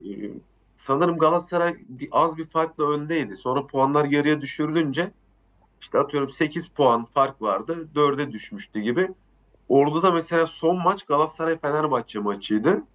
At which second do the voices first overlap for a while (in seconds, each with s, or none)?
none